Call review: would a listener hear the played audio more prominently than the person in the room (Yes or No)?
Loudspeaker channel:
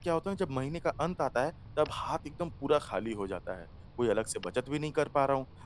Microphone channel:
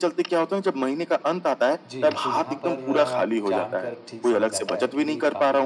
Yes